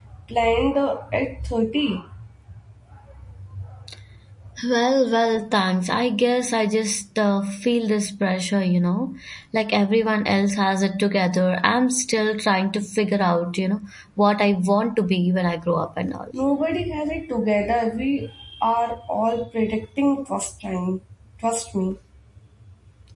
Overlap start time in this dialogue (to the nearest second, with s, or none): none